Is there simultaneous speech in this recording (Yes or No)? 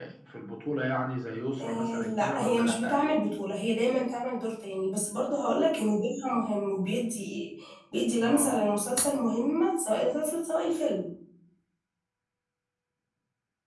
Yes